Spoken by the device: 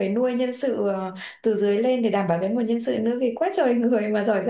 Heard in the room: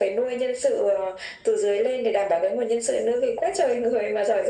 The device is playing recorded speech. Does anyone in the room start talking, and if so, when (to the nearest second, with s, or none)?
none